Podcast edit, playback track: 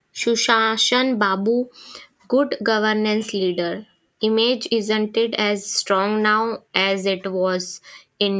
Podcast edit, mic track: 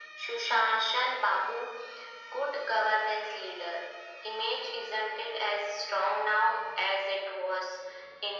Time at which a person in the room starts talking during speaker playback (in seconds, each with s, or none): none